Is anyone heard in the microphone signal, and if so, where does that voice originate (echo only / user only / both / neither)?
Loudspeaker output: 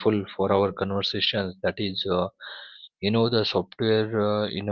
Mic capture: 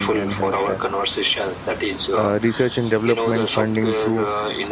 both